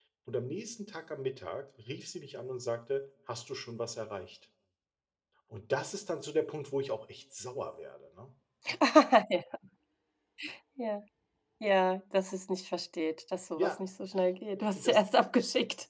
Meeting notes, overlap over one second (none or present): none